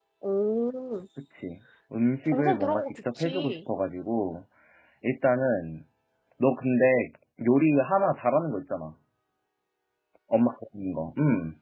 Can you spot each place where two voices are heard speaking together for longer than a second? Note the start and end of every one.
2.2-3.6

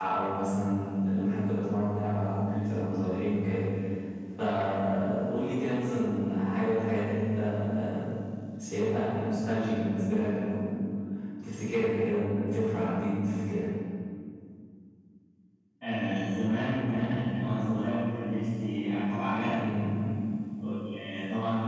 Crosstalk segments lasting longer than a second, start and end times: none

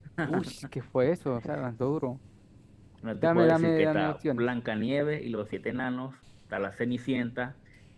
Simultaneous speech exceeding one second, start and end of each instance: 3.2-4.4

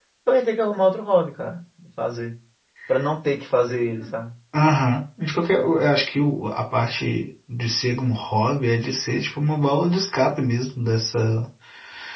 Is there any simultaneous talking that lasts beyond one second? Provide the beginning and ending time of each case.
none

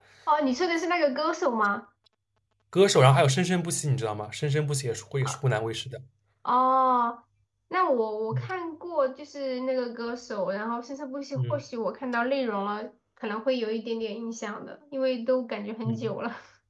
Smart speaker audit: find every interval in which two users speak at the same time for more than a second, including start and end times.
none

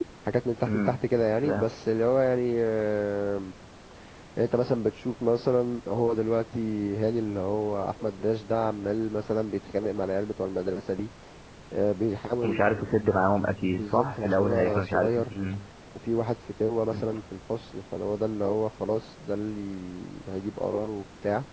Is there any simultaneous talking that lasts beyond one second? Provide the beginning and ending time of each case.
13.6-15.3

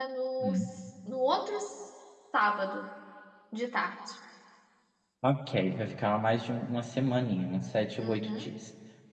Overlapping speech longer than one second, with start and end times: none

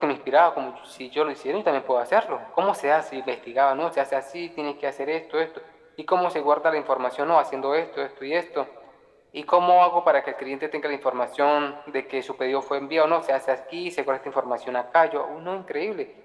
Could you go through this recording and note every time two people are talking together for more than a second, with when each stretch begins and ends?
none

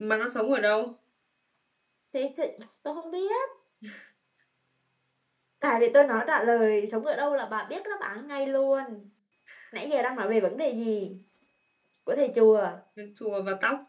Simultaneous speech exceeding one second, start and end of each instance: none

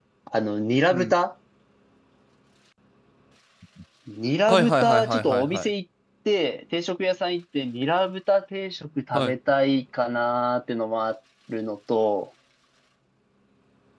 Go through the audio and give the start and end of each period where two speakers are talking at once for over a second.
4.5-5.7

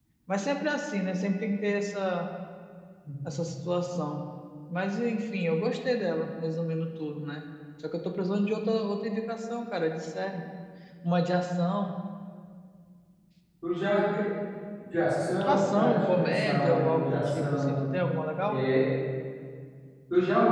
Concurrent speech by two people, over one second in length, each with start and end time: 15.4-17.8

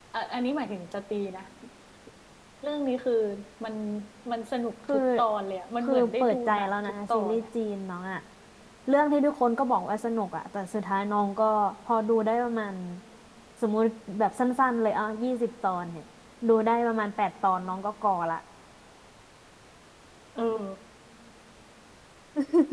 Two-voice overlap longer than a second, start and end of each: 5.8-7.4

